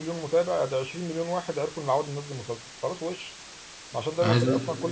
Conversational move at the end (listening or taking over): listening